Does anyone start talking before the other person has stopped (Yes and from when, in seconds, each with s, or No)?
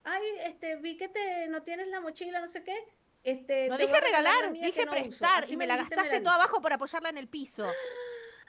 Yes, from 3.7 s